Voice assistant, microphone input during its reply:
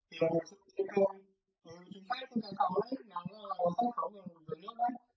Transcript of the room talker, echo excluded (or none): none